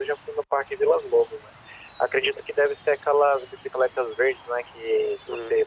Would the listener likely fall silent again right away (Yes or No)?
Yes